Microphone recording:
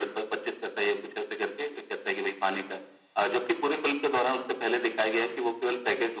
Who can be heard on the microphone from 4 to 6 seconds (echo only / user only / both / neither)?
echo only